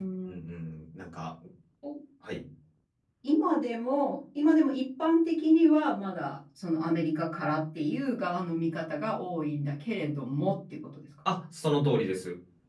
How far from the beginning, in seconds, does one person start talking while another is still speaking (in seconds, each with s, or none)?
none